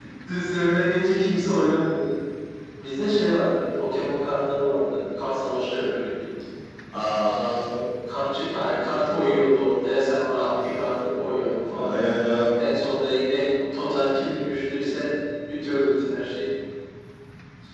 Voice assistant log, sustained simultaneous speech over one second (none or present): none